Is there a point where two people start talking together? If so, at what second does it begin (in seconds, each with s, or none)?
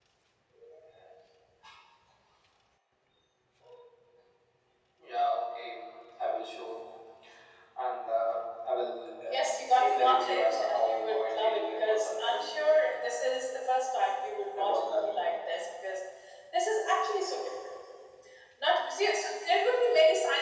9.3 s